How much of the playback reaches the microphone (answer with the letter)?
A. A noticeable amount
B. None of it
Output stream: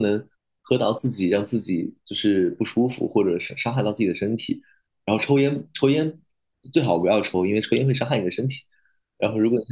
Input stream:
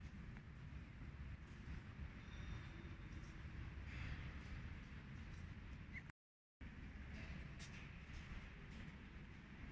B